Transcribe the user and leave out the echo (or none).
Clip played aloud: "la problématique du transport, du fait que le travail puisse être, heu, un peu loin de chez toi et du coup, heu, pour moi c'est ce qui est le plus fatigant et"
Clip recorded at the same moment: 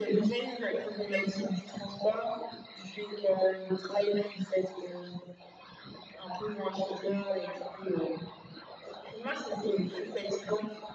none